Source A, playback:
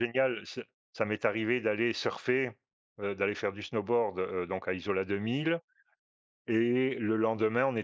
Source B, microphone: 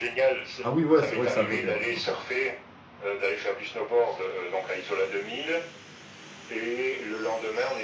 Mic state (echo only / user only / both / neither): both